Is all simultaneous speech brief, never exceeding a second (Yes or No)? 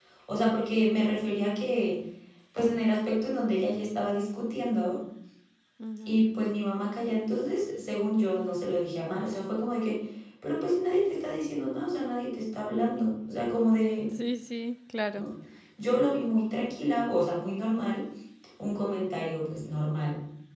Yes